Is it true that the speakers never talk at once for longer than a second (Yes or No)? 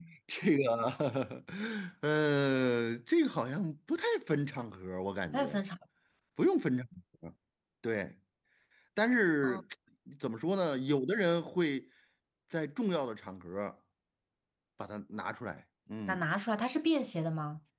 Yes